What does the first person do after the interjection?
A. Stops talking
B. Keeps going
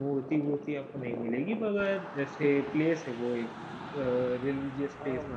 A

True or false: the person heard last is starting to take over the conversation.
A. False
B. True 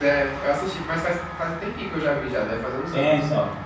B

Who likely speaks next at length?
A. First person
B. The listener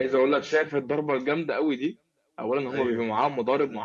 A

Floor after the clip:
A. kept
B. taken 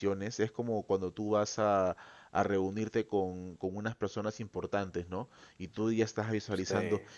A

